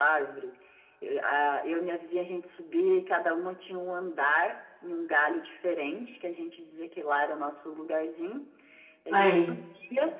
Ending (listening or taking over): listening